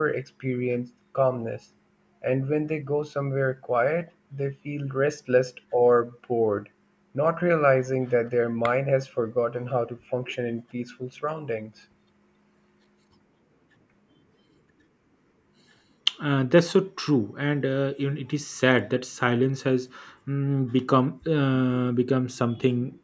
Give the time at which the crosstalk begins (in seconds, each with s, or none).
none